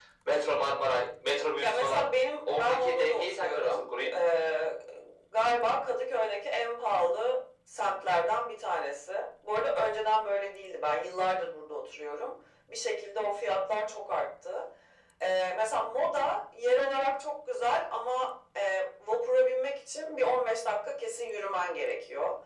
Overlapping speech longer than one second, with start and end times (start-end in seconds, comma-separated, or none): 2.5-3.9